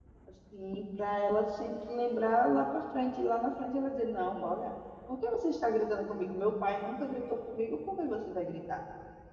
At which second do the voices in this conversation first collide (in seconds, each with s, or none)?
none